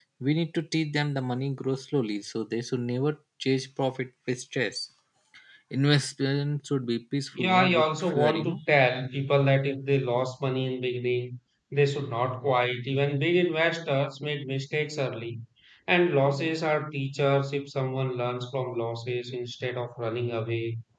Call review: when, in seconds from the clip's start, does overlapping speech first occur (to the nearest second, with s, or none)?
7 s